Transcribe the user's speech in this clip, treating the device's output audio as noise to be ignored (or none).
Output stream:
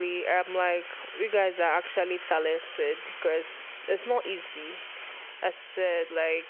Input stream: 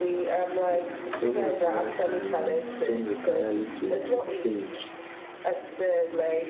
It- Some require time, and some require you to to think,